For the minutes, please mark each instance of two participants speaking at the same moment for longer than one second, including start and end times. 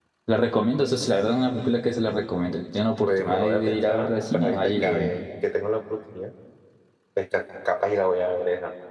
3.1-5.1

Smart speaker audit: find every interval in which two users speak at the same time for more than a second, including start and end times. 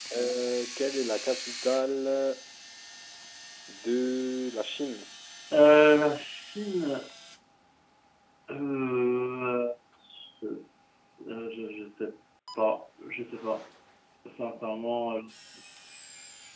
none

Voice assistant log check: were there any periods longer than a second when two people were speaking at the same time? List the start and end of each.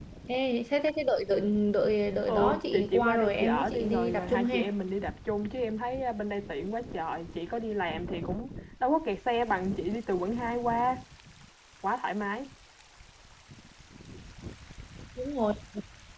2.3-4.6

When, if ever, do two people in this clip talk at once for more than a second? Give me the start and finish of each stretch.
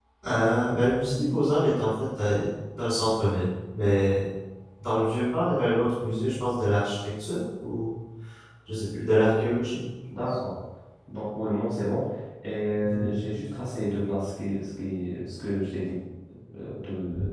none

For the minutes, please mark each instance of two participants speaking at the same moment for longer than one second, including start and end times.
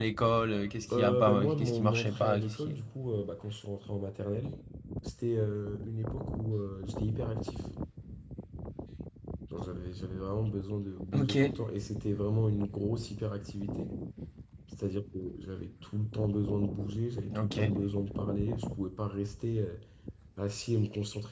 0.9-2.8

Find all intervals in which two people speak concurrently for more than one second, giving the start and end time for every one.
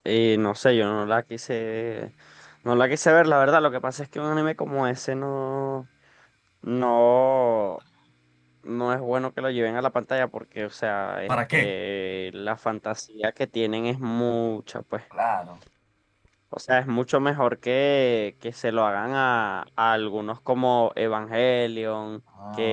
none

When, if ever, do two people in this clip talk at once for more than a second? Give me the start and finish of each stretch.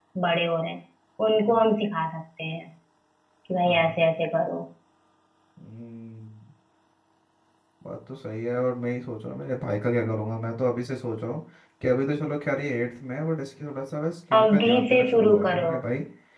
14.3-15.7

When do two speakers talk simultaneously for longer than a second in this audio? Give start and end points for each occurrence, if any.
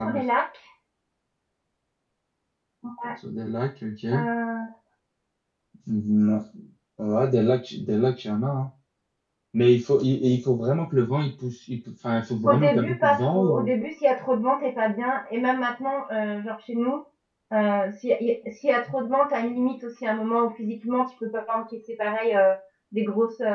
12.4-13.7

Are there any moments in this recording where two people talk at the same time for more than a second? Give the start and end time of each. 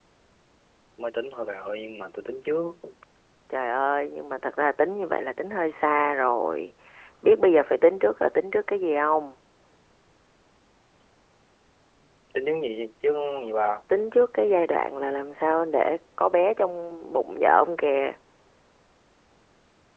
none

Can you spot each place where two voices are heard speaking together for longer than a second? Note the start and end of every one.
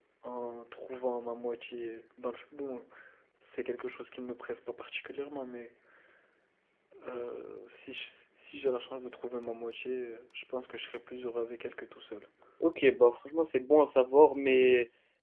none

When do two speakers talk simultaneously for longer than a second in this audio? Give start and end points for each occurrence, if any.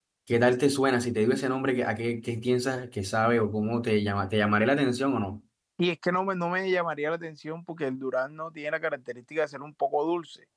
none

